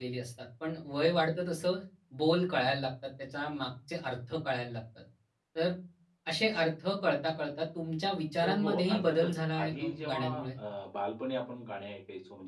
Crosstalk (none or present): present